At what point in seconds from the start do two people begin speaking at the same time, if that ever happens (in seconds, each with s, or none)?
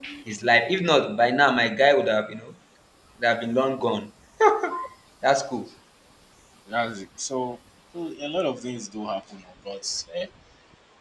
none